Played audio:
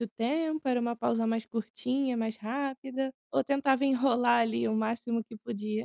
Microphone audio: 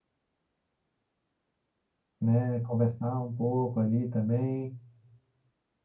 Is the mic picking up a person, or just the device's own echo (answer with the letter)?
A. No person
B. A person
B